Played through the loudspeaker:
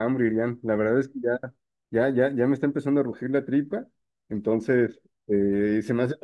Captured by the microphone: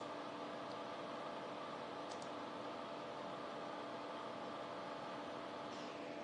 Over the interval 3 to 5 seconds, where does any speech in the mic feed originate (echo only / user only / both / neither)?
neither